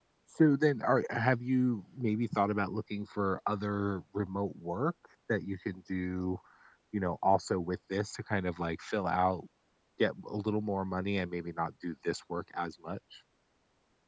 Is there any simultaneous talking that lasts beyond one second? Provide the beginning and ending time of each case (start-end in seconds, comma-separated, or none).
none